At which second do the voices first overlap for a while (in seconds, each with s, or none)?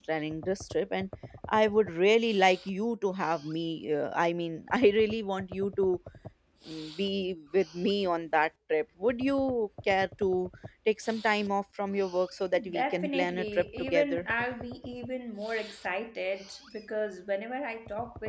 12.5 s